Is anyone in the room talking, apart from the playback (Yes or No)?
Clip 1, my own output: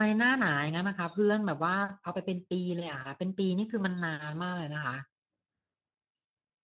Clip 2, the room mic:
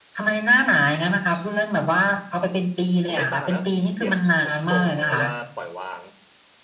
Yes